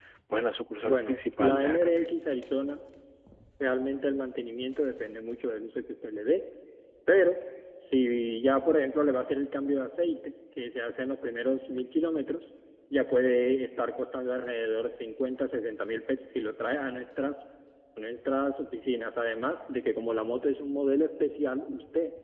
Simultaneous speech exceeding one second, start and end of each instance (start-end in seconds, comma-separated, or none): 0.8-2.1